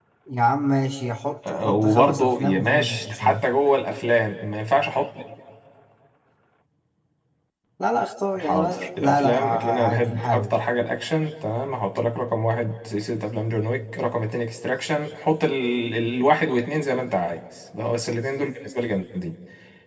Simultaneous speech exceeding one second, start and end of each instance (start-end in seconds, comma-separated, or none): 1.5-3.4, 8.4-10.5